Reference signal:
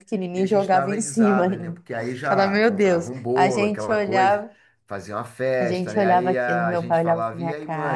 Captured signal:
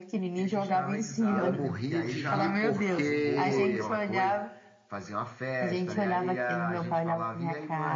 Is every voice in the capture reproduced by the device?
No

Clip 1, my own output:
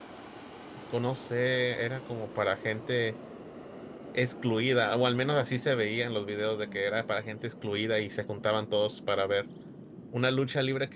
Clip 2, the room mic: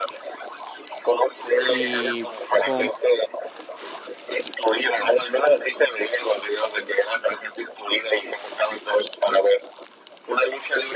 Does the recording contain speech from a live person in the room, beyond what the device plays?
Yes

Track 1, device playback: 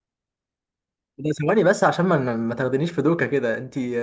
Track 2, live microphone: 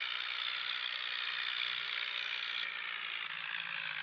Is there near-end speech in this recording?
No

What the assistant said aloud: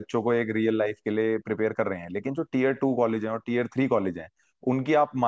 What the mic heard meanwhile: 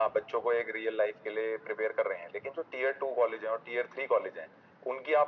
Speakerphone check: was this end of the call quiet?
Yes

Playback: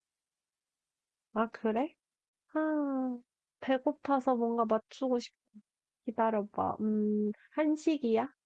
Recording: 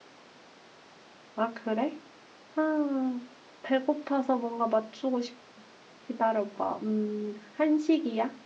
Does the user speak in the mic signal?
No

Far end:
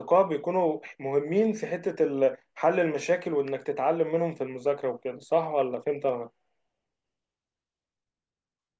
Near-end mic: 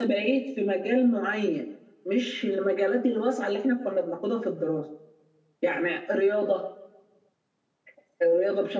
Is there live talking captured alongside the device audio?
Yes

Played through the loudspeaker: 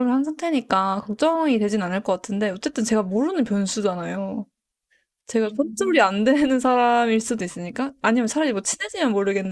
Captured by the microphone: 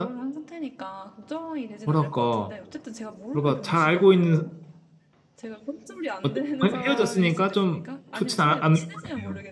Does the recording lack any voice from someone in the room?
No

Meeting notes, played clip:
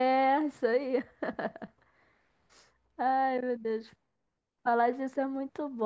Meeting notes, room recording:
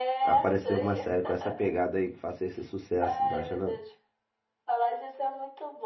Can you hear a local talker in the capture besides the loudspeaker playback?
Yes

